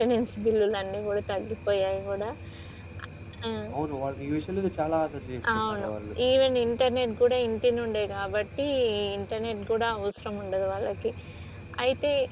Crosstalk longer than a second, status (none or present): none